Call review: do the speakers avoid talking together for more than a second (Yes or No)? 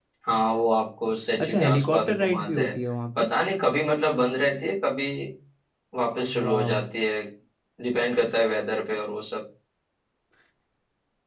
No